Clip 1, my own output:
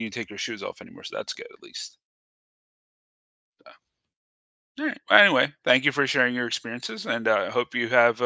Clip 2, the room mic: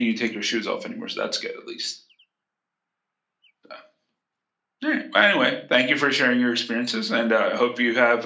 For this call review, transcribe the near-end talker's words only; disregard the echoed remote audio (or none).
none